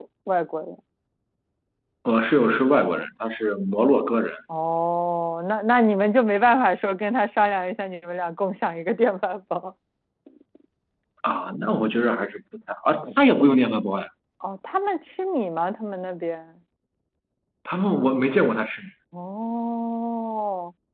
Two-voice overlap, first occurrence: none

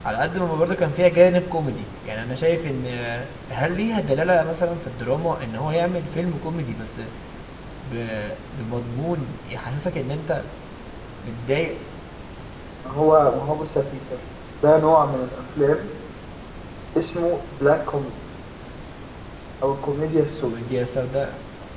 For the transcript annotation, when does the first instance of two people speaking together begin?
none

